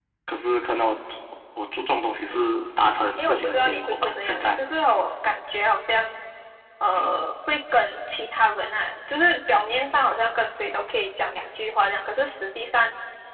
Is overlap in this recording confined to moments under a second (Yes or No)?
No